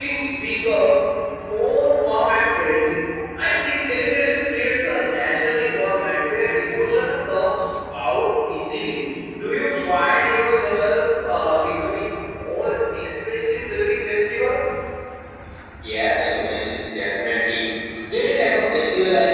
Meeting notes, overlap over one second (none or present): none